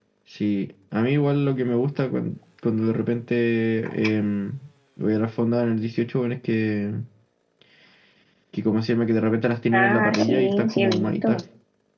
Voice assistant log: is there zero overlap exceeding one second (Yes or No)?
No